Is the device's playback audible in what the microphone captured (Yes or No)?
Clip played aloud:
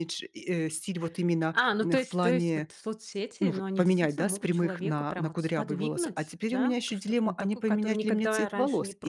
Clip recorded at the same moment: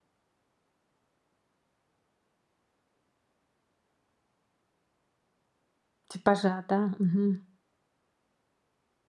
No